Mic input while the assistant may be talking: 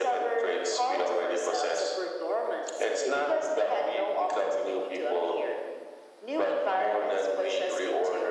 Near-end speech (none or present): none